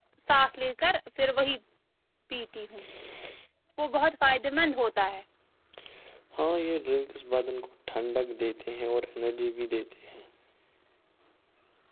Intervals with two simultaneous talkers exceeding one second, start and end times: none

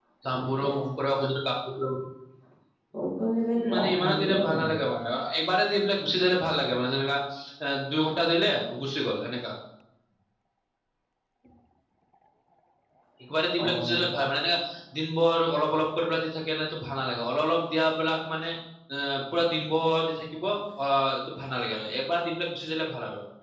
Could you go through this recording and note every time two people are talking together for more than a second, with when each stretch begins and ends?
3.6-4.8

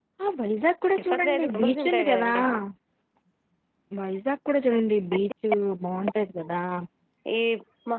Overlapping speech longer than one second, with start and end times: 1.0-2.3

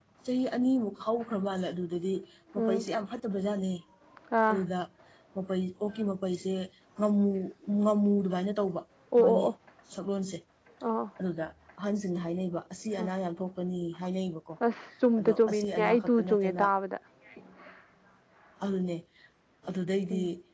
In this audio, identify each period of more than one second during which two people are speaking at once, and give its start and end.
15.2-16.6

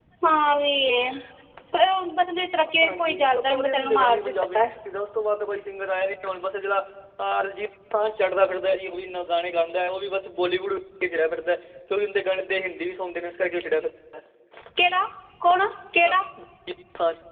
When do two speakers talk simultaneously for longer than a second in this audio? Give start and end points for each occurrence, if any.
2.8-4.6

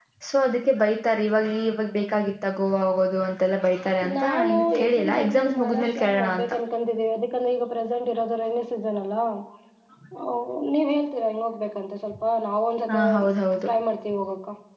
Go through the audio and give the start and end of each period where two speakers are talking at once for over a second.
4.1-6.5

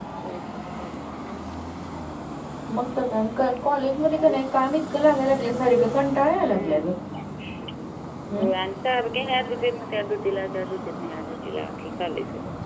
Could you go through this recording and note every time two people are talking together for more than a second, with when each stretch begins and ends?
none

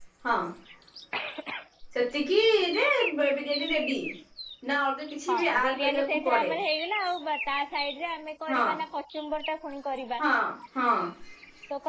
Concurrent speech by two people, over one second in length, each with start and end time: 5.3-6.5

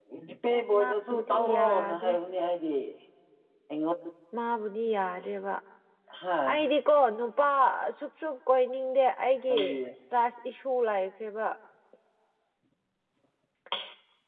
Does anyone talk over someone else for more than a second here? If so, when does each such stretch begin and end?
0.6-2.1

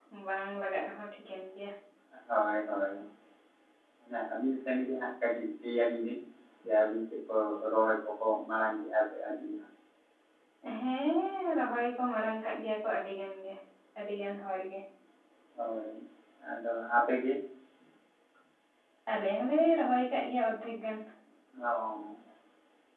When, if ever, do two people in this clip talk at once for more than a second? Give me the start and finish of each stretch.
none

